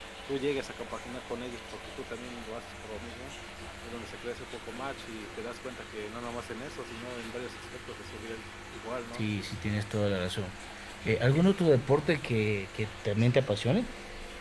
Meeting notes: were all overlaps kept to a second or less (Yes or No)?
Yes